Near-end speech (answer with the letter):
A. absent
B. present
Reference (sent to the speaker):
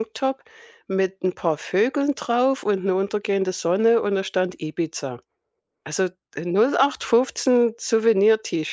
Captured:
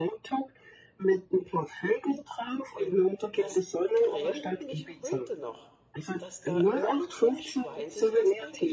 B